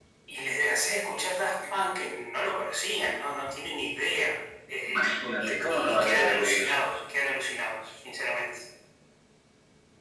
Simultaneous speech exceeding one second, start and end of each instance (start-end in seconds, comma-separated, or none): 4.9-6.7